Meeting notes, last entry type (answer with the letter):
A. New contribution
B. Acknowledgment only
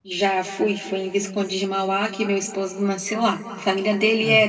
B